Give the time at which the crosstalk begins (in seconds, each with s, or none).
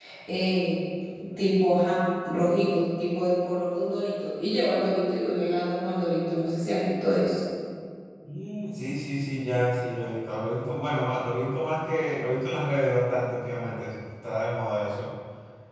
none